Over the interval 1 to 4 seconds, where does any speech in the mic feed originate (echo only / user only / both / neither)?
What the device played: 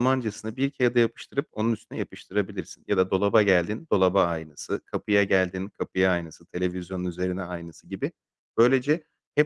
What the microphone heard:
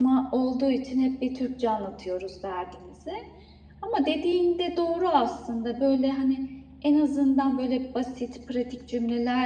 user only